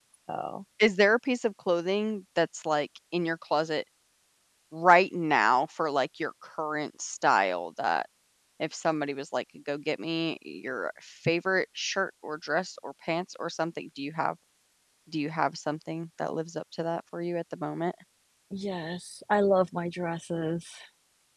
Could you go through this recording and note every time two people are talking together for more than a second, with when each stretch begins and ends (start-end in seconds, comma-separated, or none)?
none